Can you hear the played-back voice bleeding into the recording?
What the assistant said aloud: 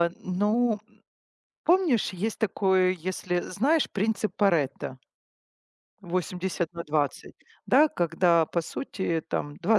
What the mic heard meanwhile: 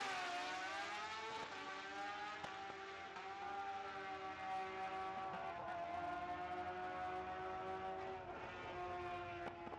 No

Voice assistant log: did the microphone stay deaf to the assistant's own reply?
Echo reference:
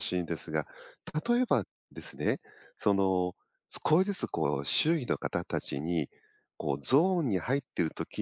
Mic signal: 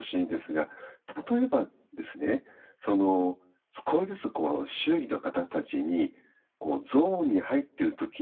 No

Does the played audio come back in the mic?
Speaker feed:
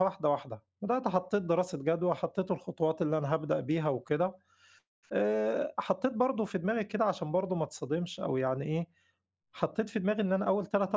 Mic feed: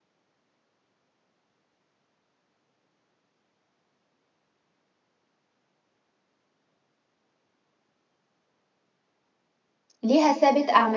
No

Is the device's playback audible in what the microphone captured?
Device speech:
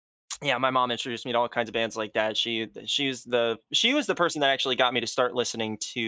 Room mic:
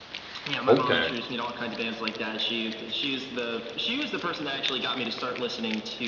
Yes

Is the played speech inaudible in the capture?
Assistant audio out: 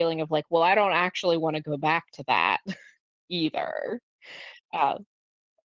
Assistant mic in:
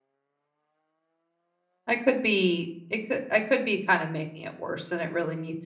Yes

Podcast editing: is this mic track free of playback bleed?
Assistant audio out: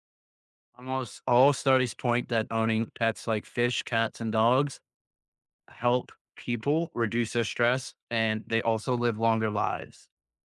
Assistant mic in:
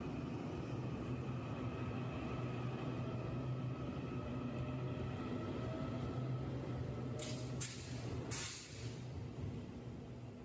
Yes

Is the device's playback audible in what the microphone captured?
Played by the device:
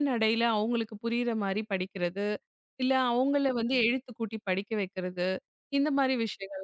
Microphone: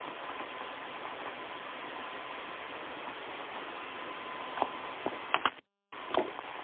No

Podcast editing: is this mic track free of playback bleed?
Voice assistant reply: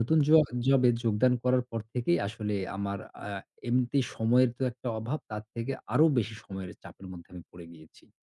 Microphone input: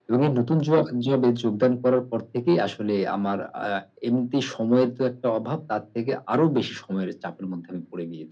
No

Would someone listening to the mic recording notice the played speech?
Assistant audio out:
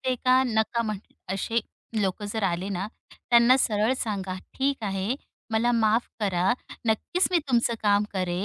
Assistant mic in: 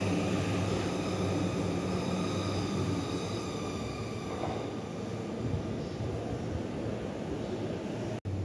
No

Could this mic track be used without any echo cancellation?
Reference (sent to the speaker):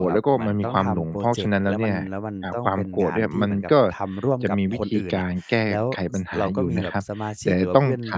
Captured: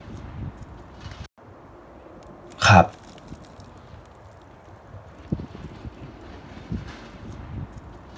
Yes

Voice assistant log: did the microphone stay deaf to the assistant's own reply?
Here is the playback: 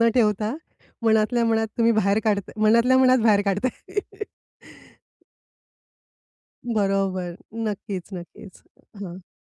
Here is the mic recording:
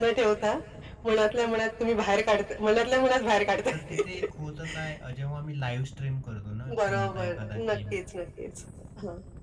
No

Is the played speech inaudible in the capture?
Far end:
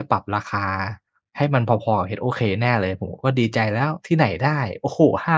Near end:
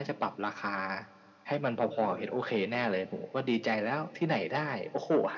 No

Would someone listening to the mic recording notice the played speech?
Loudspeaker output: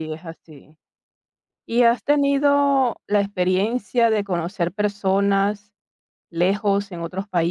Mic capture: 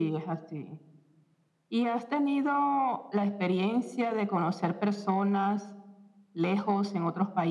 Yes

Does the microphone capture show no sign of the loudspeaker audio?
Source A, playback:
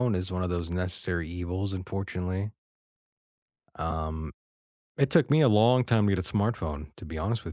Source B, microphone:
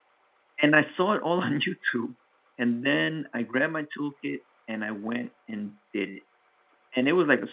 Yes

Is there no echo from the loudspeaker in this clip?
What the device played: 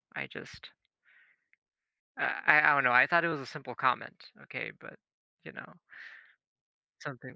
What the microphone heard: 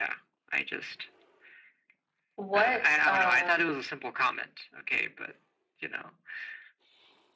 No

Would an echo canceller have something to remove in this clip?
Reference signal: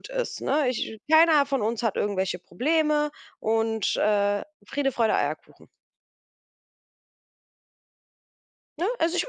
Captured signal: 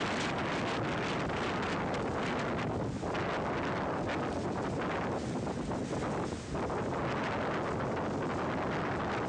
No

